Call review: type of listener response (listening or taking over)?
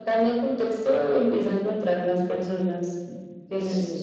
taking over